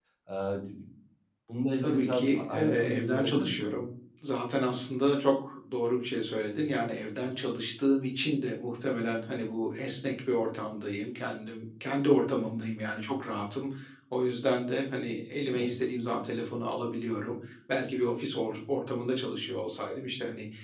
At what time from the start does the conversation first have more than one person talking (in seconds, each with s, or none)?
1.8 s